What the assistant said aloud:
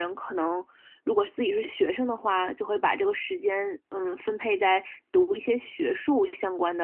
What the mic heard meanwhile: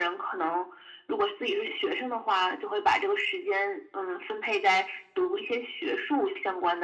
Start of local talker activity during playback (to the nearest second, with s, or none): none